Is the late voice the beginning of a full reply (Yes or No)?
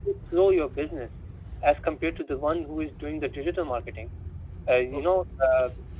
No